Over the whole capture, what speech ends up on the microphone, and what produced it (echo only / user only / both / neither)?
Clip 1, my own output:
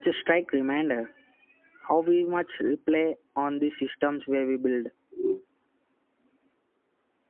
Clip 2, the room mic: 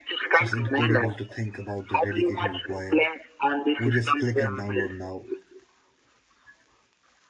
both